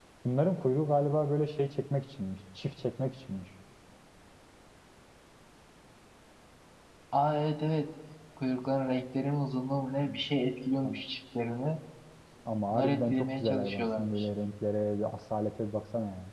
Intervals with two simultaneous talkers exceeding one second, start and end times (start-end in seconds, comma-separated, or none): 12.7-14.3